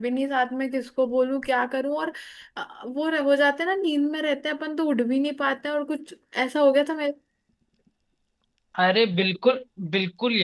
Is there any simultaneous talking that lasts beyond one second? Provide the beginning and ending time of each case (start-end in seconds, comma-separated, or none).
none